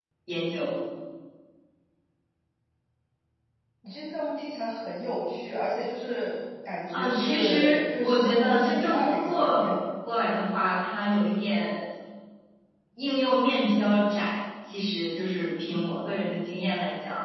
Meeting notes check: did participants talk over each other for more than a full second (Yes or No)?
Yes